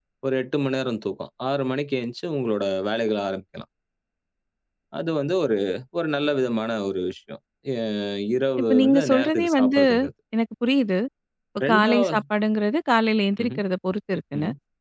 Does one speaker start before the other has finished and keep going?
Yes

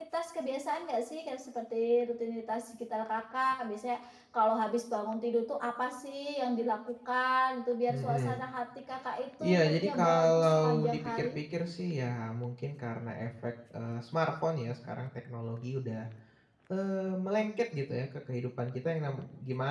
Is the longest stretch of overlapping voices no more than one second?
No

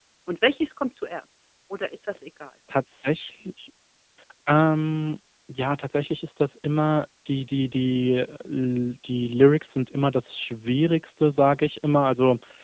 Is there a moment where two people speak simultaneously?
No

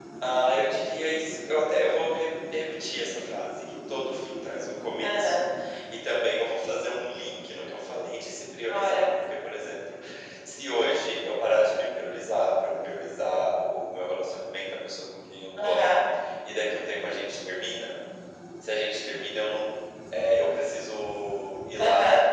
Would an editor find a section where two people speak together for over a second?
No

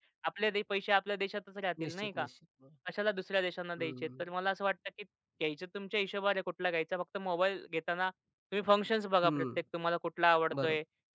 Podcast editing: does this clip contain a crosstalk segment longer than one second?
No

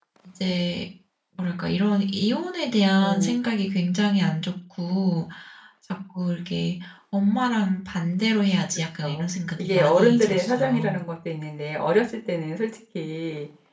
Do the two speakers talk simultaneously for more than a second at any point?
Yes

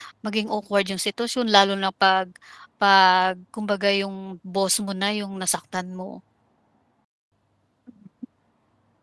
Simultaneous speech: No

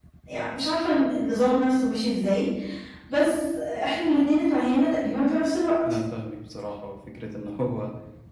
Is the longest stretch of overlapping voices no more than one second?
Yes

